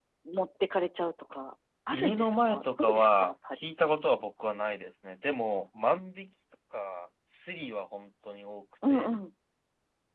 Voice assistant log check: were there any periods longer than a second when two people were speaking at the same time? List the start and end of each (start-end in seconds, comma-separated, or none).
1.9-3.6